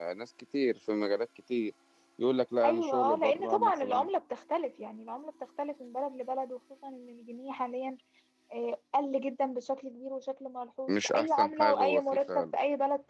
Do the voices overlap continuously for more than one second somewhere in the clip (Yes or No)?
Yes